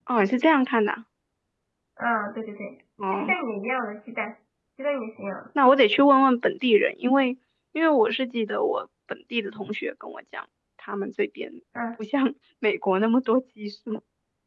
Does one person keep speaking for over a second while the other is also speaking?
No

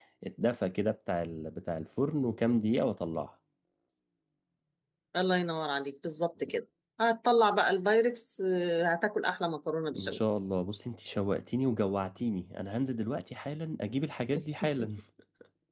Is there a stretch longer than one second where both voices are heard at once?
No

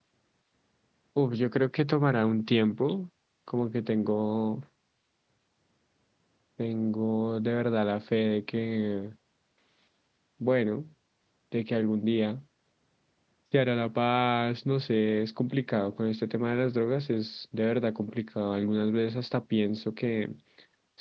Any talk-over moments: No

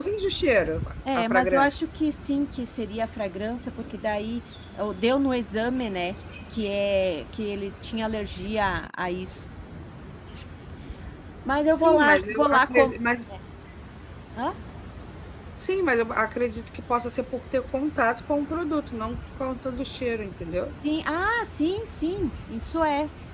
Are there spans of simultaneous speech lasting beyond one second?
Yes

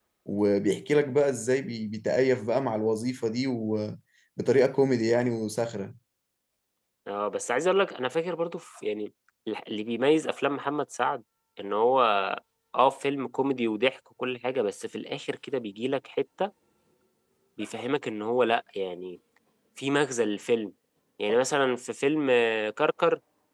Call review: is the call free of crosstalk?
Yes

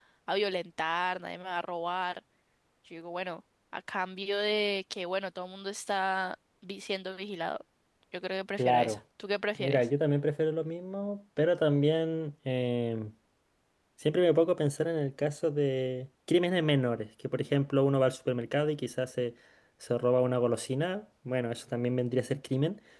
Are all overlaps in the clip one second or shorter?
Yes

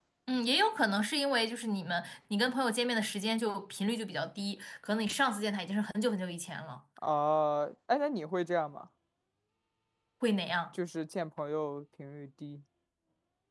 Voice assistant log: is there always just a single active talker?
Yes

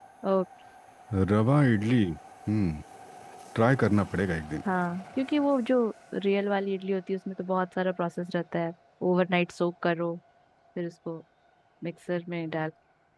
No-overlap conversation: Yes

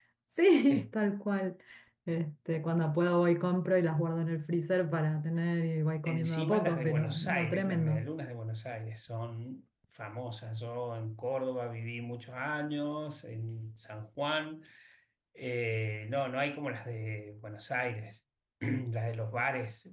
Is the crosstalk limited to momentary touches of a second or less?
No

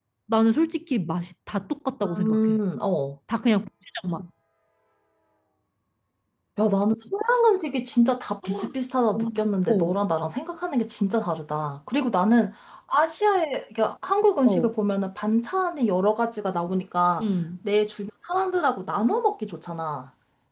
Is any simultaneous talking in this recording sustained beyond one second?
No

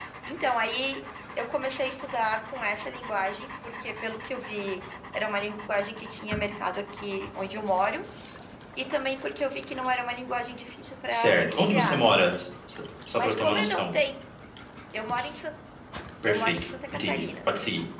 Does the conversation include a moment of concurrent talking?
Yes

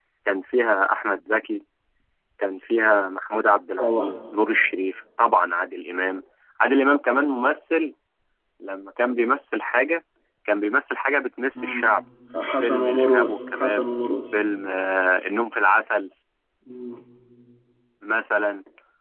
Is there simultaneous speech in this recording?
Yes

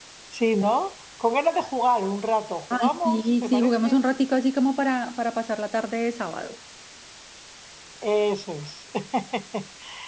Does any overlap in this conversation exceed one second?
Yes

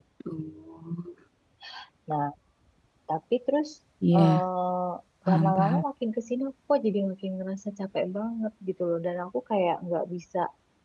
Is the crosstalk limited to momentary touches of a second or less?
Yes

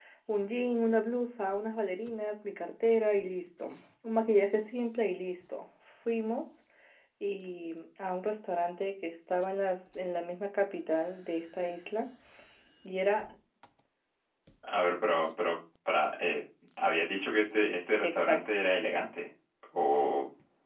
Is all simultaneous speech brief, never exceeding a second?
Yes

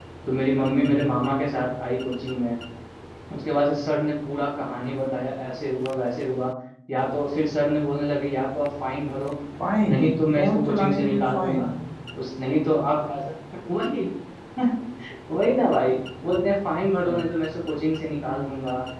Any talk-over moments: Yes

